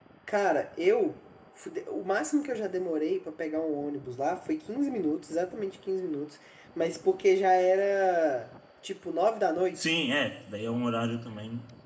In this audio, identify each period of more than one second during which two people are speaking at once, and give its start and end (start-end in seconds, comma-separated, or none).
none